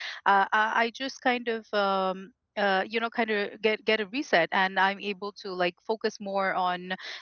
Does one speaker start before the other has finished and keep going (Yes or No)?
No